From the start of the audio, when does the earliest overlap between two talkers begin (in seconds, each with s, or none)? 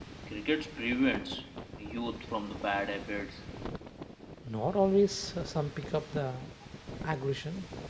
none